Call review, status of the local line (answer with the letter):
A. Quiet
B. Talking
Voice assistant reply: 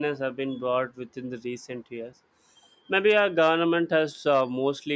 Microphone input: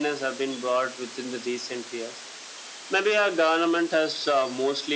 A